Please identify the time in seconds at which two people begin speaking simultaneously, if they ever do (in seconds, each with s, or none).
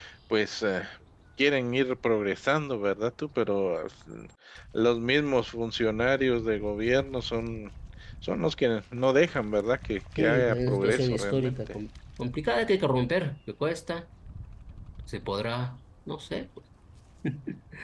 10.2 s